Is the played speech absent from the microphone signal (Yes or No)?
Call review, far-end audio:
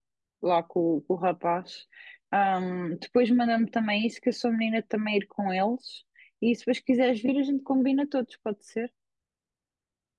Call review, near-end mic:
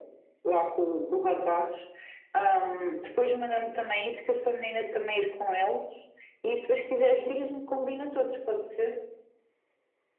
No